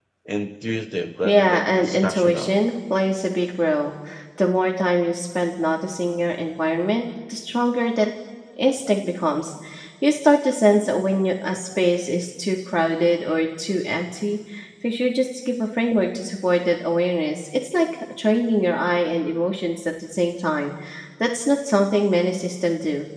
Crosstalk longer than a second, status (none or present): present